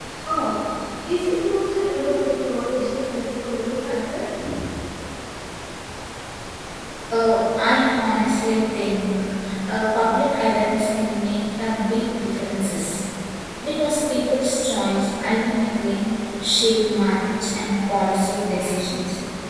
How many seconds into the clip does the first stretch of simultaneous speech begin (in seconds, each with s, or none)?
none